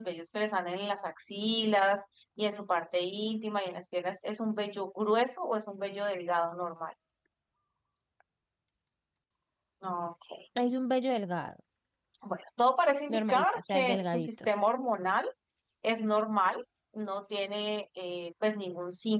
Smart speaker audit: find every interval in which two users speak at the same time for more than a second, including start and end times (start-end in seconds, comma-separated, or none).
13.1-14.5